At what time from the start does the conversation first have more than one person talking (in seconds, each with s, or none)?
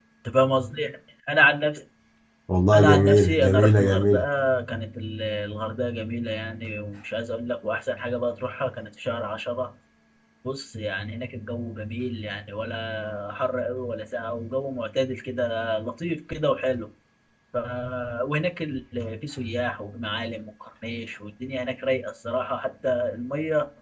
2.7 s